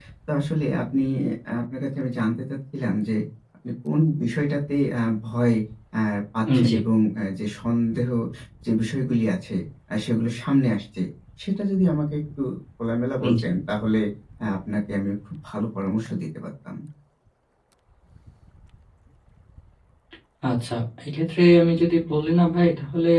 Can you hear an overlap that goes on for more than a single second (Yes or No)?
No